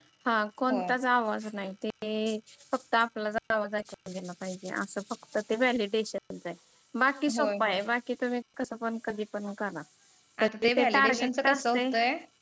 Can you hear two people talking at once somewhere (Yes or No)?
Yes